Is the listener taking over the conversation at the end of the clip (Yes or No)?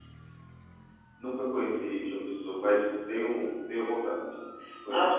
Yes